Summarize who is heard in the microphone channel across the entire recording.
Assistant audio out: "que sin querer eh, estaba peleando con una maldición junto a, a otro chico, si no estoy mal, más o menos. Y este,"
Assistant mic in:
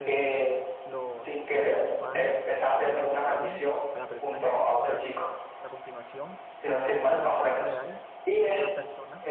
both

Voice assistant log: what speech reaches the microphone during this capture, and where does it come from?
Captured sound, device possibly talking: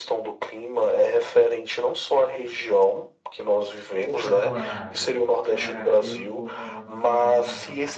both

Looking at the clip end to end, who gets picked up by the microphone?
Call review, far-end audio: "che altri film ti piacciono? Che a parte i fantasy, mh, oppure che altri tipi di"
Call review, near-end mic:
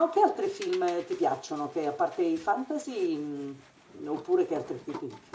echo only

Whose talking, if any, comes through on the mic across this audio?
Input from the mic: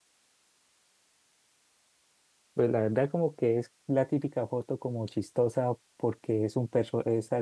user only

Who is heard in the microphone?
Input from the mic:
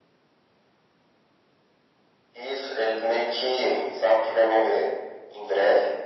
echo only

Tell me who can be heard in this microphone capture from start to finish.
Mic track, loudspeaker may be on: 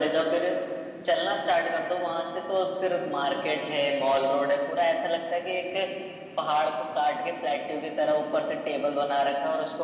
echo only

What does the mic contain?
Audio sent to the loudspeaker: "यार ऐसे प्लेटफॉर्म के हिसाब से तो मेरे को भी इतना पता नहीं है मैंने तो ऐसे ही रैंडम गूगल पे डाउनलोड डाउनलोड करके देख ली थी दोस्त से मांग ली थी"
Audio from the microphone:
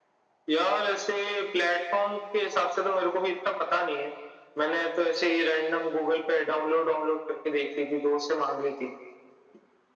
echo only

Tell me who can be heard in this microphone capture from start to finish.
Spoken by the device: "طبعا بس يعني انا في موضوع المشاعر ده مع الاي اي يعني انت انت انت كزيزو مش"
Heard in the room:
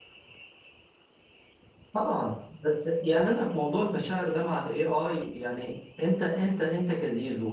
echo only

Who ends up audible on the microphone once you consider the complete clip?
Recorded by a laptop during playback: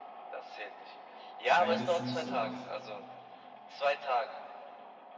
both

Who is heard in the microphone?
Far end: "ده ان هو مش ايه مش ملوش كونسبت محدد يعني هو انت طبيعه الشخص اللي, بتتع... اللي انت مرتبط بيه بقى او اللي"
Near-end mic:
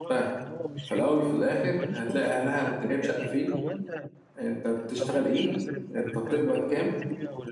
both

